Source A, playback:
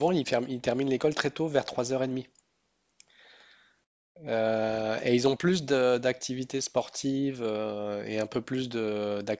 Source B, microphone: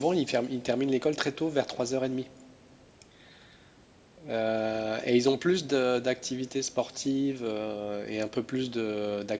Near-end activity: none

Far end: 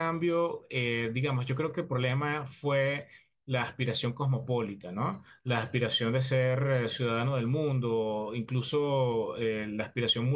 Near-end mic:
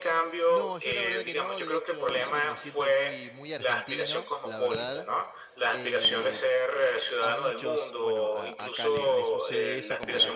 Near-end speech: present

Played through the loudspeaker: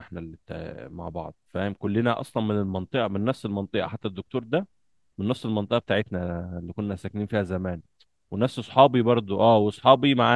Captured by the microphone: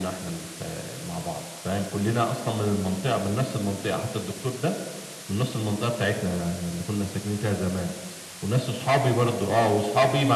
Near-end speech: none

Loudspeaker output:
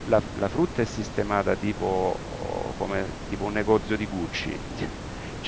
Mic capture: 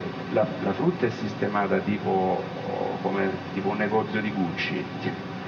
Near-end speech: none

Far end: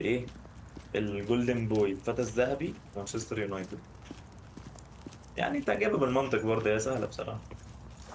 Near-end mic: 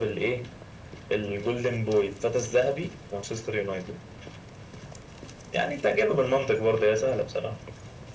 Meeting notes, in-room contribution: none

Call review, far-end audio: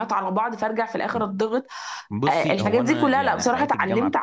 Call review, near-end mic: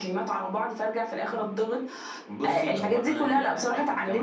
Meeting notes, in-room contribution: none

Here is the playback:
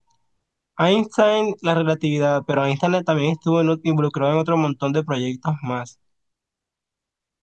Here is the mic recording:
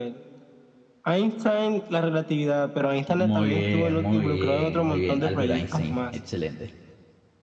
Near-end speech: present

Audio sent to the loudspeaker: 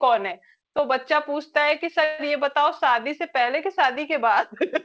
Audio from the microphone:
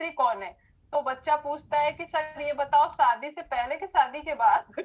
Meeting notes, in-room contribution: none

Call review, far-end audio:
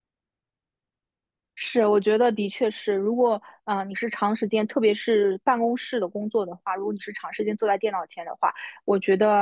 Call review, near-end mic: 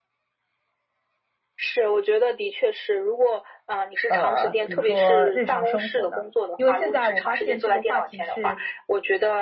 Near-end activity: present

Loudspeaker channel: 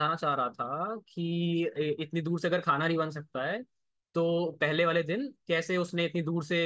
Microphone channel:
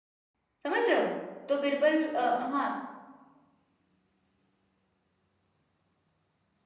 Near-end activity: present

